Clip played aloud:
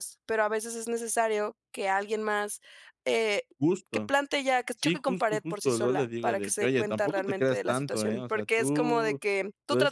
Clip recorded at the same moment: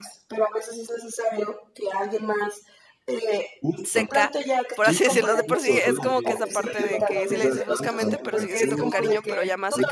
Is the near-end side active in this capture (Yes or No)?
Yes